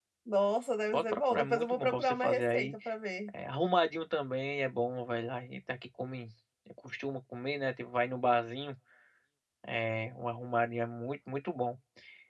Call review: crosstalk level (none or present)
present